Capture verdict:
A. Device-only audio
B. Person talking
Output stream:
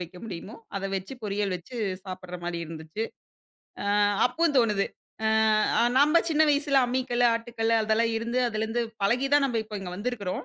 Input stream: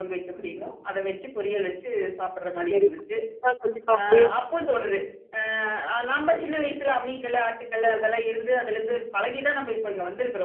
B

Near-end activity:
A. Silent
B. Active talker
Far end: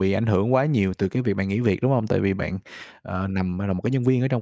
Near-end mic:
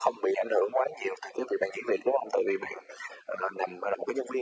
A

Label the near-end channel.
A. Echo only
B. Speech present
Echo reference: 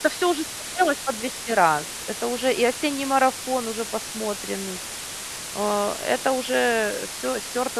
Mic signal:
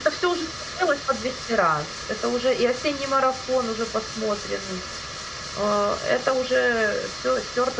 A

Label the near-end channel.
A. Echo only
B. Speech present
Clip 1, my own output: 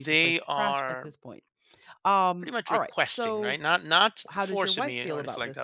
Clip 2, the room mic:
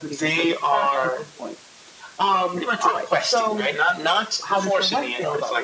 A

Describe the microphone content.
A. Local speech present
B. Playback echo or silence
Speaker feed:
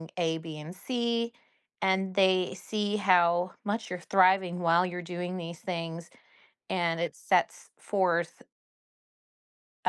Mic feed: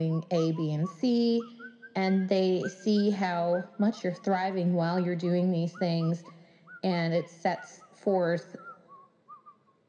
B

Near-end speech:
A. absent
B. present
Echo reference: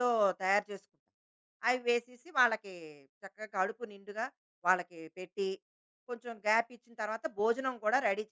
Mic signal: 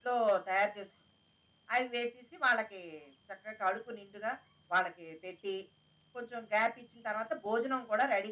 A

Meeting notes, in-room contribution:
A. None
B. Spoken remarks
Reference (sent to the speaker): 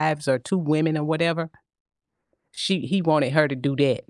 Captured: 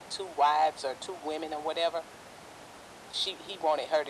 A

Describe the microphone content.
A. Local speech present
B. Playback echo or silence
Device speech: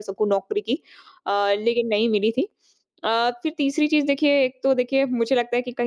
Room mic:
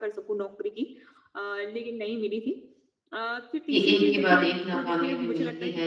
A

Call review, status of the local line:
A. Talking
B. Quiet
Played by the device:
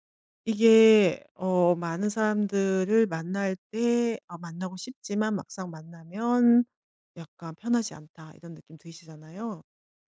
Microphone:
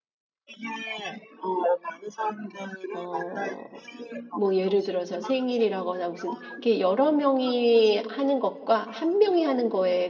A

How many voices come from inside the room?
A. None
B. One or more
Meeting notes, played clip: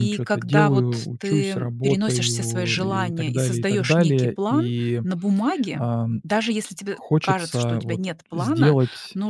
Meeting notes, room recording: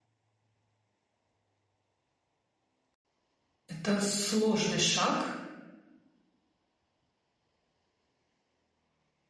B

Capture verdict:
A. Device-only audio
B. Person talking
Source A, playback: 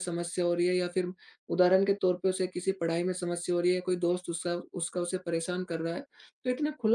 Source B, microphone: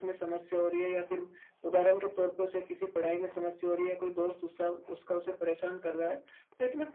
A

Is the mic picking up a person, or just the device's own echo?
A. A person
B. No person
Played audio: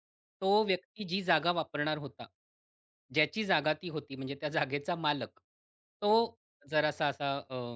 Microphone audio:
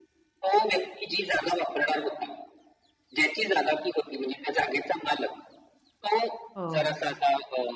A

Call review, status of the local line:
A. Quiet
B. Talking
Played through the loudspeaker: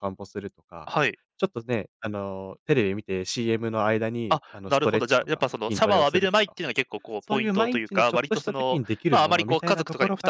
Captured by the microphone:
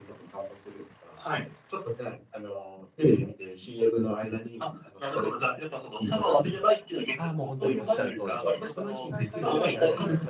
B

